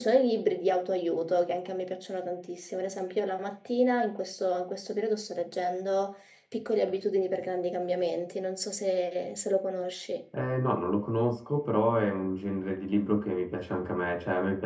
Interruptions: none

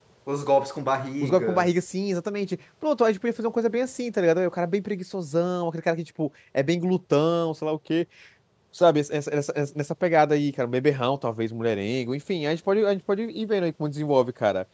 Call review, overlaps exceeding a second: none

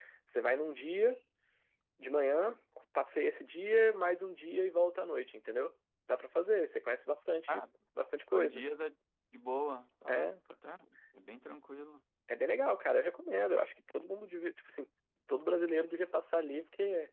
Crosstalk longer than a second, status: none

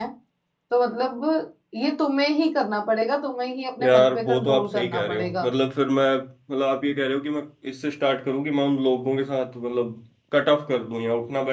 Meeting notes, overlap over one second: present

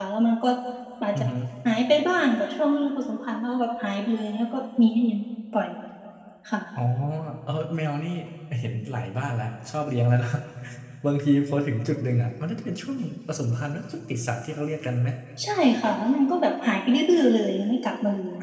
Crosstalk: none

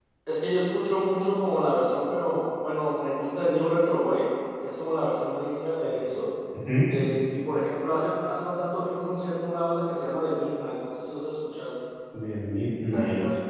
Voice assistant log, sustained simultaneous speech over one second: none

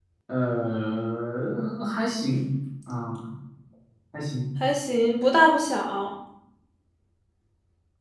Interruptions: none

